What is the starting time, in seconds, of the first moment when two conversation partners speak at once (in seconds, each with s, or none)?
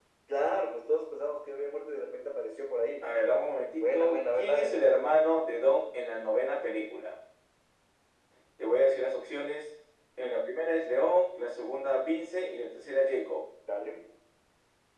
3.8 s